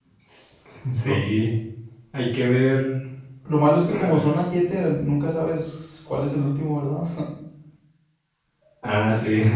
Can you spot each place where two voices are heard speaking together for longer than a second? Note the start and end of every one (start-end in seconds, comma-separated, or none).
none